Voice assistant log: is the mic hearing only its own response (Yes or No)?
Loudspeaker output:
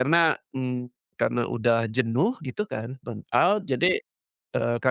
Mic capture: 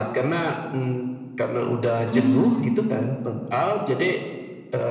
No